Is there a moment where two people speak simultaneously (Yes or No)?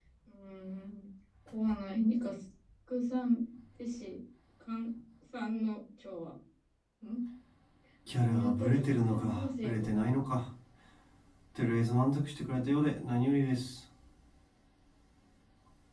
Yes